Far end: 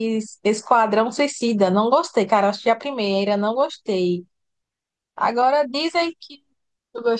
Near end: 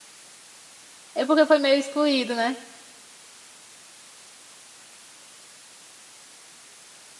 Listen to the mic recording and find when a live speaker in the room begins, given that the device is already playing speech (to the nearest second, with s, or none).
1 s